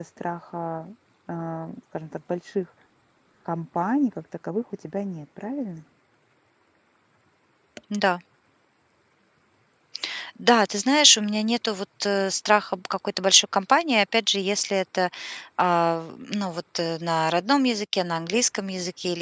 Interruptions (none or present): none